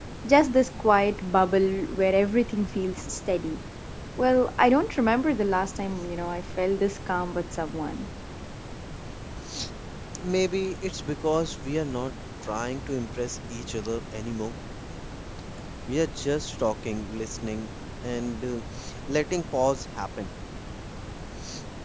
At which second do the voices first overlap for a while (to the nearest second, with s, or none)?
none